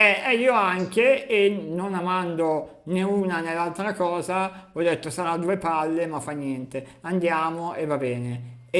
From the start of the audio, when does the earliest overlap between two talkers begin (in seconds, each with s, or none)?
none